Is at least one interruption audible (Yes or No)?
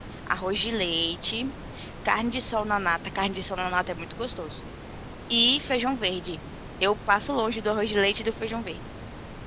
No